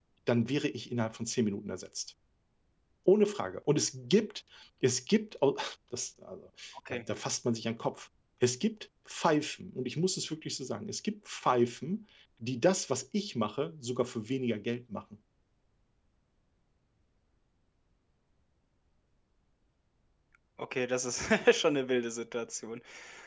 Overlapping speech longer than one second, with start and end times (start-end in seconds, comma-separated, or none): none